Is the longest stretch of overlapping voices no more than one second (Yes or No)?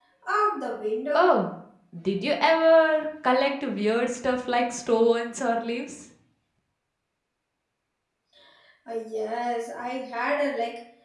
Yes